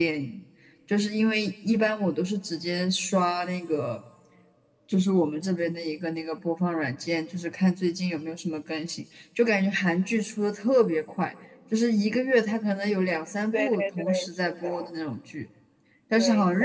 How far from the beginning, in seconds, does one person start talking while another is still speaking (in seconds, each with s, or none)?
13.5 s